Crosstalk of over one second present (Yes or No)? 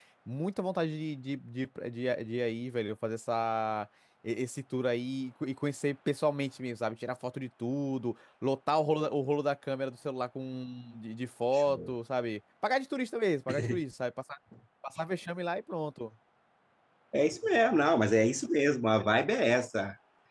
No